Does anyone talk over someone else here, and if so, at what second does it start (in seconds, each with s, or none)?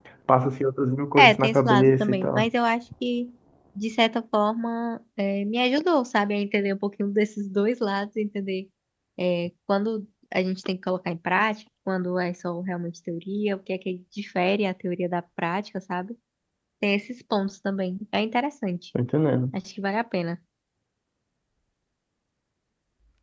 1.2 s